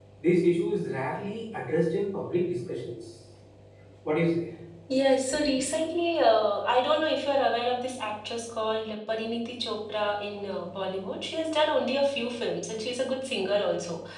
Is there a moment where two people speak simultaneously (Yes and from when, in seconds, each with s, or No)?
No